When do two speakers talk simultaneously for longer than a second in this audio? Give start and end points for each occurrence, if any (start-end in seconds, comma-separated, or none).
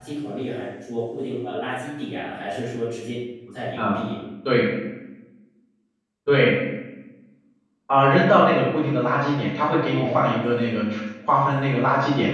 none